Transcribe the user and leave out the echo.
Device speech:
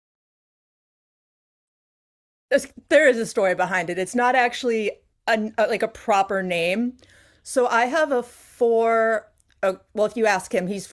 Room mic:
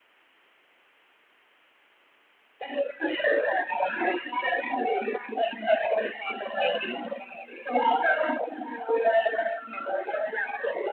none

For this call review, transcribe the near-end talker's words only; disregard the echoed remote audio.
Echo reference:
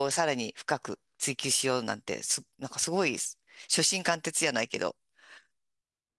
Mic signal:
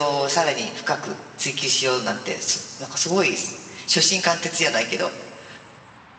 none

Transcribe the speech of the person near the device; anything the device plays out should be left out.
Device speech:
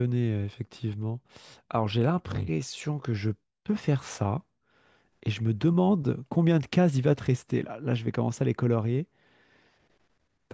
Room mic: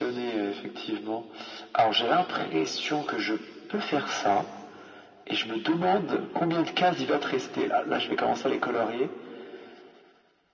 none

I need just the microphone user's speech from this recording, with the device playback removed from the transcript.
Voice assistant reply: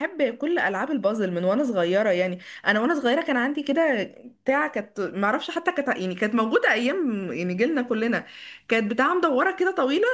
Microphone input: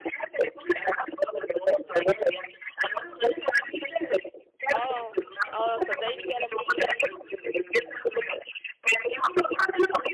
اه اه صدقي دي فعلا فكرة

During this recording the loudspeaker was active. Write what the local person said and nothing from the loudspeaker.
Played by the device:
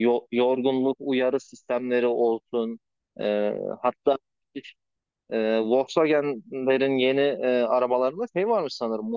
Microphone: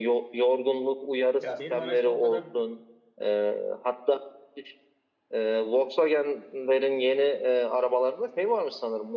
Ya benim araçta o kadar

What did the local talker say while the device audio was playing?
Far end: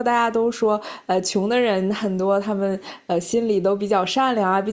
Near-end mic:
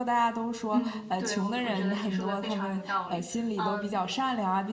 嗯，对，我我觉得你说的非常有道理。嗯，

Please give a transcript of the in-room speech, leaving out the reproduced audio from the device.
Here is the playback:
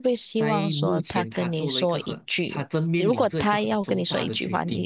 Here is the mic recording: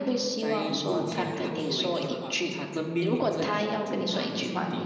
如果他要跟我说一句话。

